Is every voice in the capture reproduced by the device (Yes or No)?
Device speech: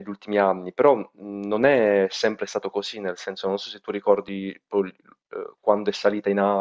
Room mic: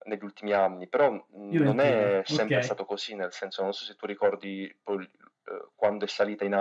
No